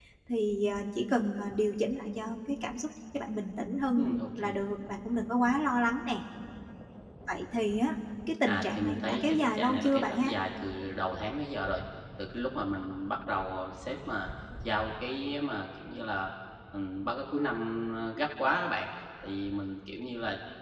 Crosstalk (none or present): present